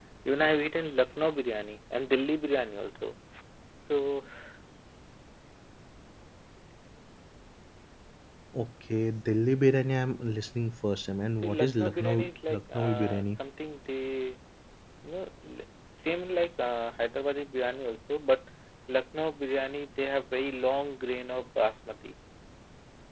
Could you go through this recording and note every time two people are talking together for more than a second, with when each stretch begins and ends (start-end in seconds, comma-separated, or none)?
11.4-13.4